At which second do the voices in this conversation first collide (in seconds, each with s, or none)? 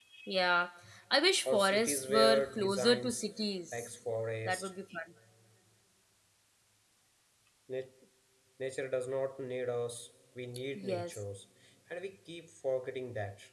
1.4 s